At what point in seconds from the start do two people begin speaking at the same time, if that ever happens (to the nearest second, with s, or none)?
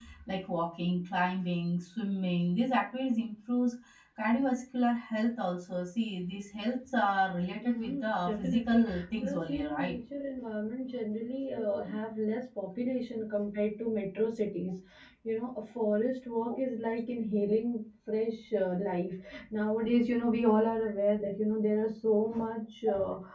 8 s